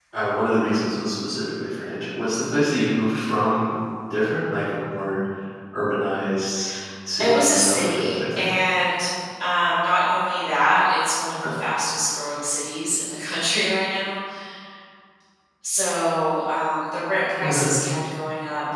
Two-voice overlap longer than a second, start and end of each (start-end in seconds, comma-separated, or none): 7.2-8.4